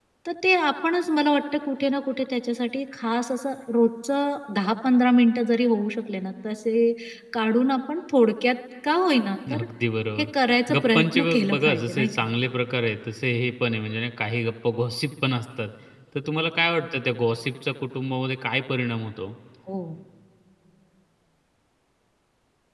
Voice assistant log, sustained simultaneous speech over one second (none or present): present